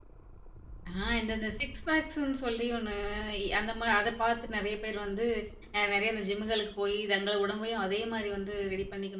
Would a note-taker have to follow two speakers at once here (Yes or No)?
No